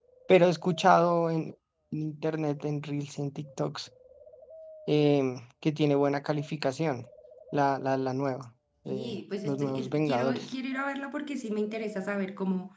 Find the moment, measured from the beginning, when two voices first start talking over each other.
8.9 s

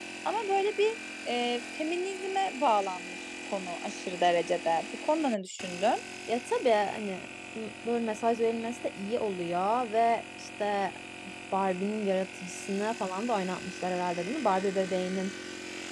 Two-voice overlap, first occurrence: none

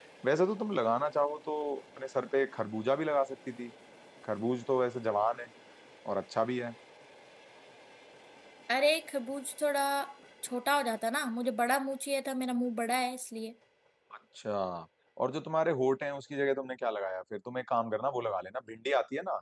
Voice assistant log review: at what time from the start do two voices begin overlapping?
none

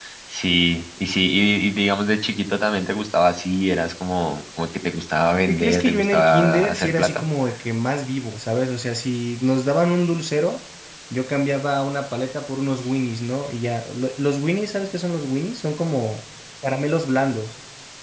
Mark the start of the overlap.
5.5 s

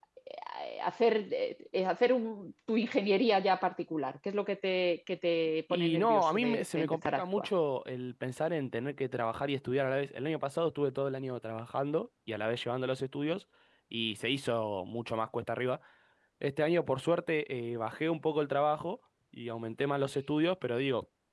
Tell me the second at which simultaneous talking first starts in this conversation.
5.7 s

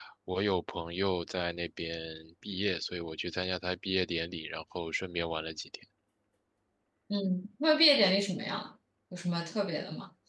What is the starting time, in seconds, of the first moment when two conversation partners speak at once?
none

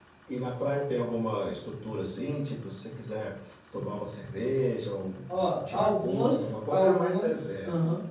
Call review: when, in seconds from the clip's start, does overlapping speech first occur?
5.3 s

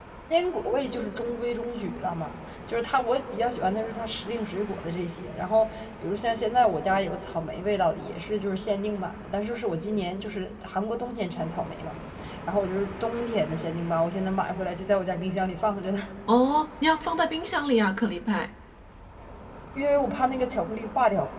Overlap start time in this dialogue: none

